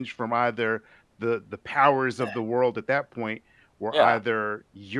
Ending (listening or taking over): listening